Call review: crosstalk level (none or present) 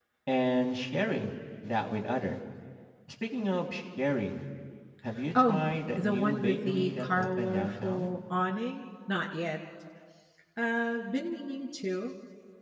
present